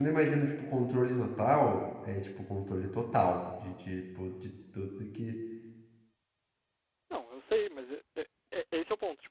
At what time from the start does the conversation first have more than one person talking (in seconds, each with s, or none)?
none